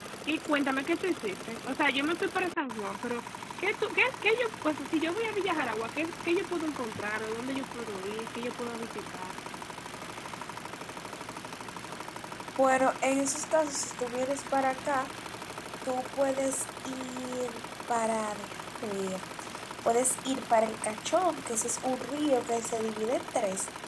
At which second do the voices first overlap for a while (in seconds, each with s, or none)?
none